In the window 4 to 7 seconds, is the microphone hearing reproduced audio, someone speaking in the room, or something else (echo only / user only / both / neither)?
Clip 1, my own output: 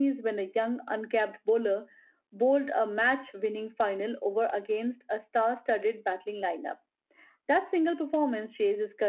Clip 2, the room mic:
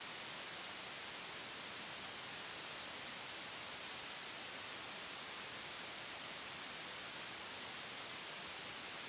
neither